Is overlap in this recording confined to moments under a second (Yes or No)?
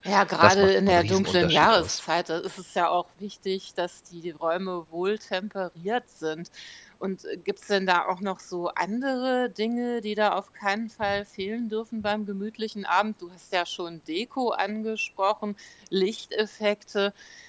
No